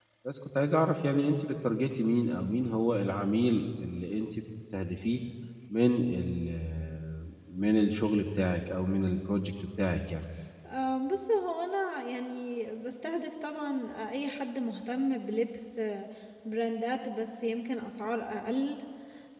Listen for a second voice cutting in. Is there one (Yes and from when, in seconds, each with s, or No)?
No